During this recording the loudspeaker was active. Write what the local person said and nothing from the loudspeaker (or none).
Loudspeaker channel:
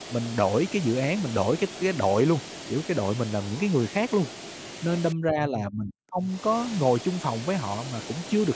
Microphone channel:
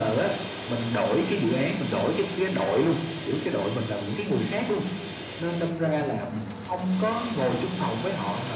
none